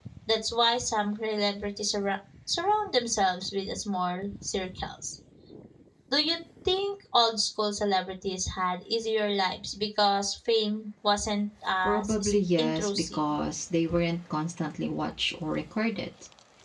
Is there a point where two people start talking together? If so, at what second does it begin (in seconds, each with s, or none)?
11.8 s